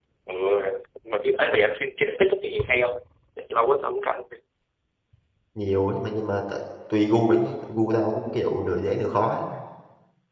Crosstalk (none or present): none